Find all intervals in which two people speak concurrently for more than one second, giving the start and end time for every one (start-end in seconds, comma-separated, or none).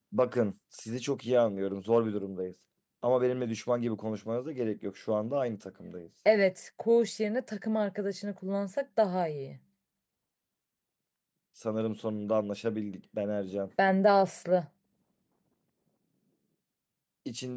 none